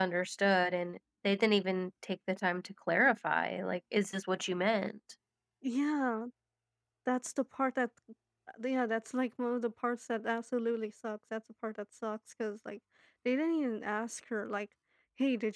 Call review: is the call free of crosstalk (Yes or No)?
Yes